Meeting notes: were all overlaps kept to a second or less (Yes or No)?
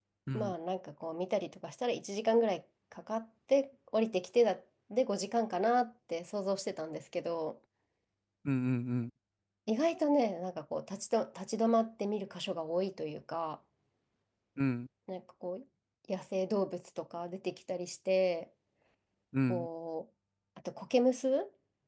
Yes